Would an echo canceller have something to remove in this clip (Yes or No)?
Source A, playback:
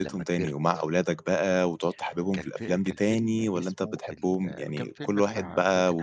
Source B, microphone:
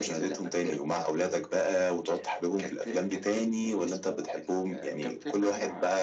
Yes